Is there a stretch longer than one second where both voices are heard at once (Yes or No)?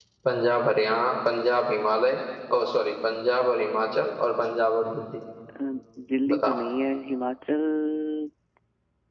No